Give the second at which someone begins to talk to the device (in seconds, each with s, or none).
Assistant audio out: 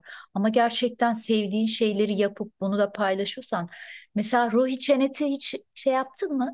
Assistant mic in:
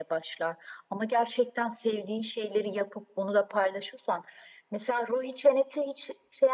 none